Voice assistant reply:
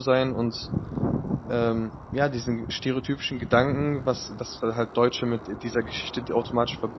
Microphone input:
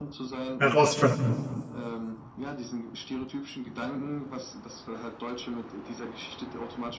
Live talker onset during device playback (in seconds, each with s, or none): 0.6 s